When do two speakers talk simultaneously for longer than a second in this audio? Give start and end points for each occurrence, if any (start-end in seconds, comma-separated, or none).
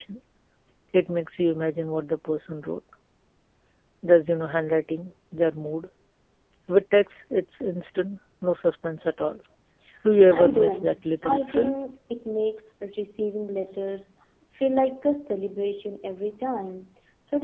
10.3-11.7